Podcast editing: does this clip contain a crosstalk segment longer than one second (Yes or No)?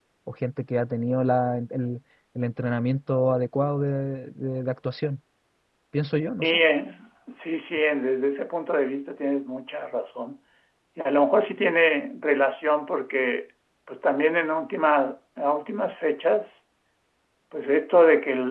No